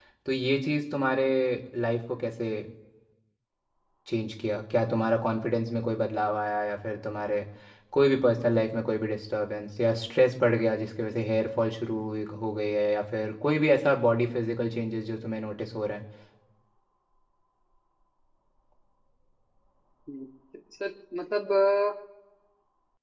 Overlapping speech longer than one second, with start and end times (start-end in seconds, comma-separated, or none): none